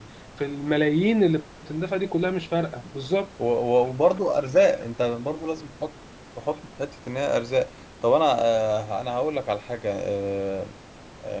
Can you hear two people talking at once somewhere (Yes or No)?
No